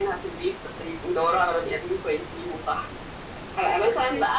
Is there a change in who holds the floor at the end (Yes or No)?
No